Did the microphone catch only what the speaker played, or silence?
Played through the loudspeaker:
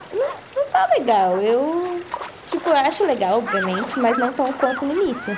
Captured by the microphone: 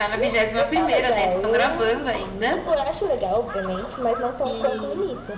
No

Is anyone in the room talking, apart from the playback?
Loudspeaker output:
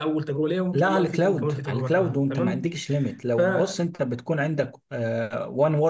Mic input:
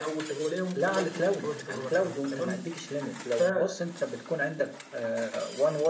No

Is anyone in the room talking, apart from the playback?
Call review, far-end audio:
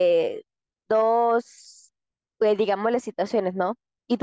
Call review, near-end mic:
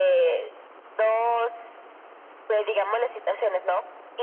No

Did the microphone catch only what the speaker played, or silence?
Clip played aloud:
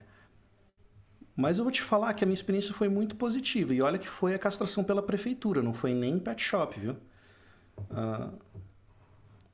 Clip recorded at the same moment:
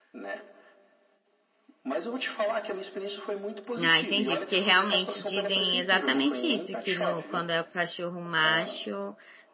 No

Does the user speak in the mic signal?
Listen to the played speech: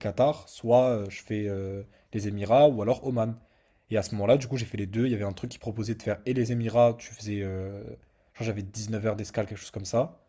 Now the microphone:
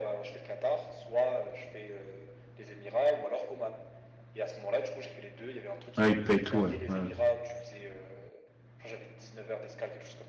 Yes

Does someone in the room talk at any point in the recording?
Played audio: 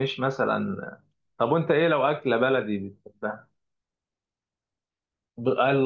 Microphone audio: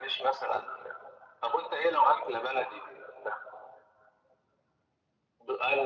No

